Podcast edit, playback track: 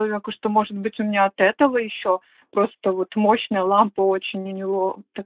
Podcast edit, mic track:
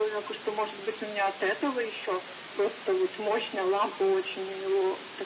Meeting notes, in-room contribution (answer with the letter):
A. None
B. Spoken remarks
A